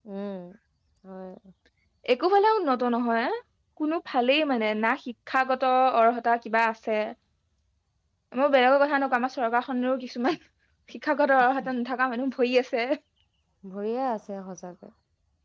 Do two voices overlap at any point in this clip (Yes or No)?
No